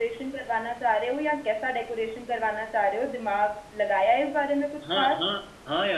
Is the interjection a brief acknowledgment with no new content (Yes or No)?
No